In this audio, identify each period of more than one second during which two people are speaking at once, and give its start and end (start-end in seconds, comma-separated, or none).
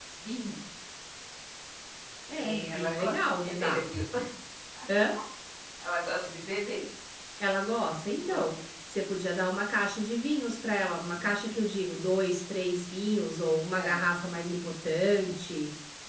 2.4-3.8